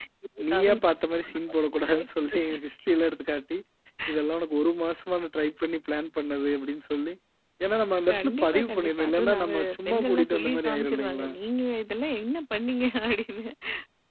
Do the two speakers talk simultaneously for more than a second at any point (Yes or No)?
Yes